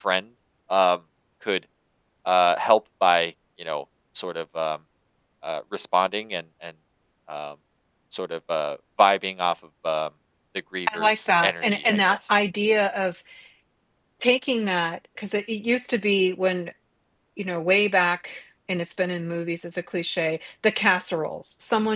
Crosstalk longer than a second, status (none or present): present